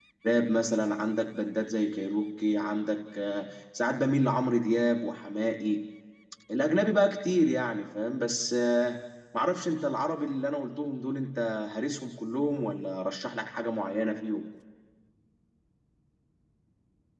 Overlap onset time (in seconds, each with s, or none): none